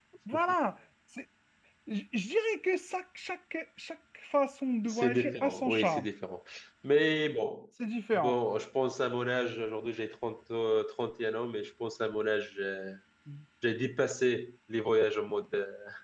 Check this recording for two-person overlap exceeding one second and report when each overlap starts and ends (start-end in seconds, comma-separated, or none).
4.8-6.1